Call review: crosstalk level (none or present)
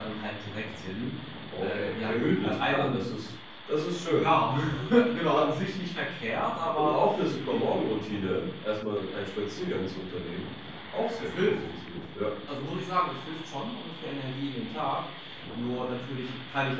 present